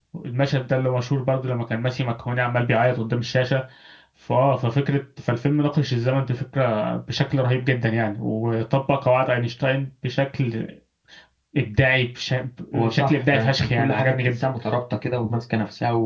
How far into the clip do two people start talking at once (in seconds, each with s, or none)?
12.7 s